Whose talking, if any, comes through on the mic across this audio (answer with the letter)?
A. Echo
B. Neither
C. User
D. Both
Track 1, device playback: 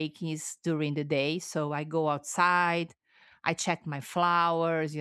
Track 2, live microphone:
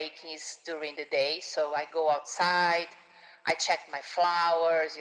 A